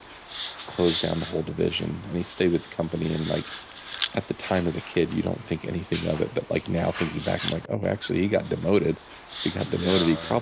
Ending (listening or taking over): listening